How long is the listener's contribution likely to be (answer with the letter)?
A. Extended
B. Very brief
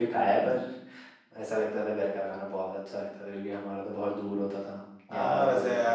A